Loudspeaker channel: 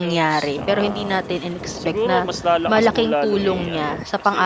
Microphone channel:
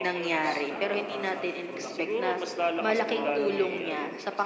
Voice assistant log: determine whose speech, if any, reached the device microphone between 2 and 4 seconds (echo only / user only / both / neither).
both